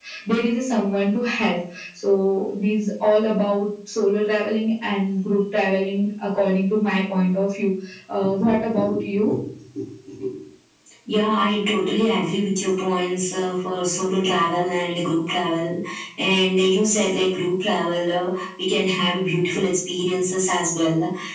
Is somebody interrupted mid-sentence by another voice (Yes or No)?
No